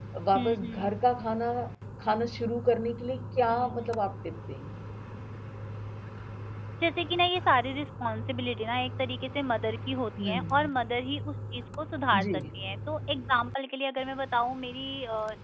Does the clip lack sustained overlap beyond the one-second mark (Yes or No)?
Yes